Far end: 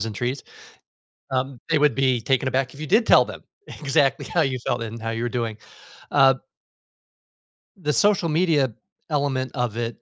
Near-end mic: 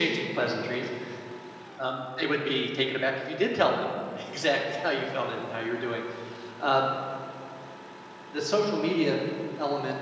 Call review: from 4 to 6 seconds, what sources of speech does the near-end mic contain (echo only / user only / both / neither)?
echo only